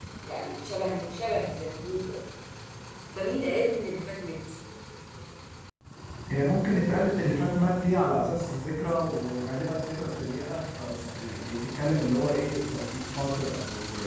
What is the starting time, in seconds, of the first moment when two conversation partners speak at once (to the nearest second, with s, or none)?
none